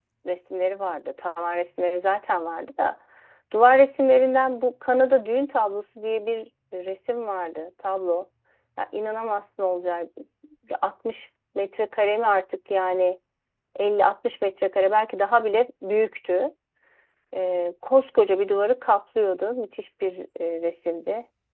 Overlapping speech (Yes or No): No